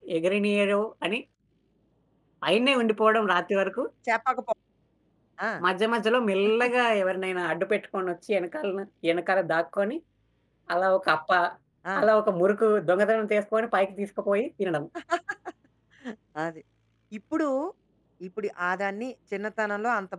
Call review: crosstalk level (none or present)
none